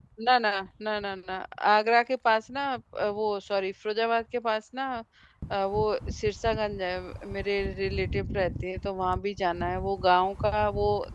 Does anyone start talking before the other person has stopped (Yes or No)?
No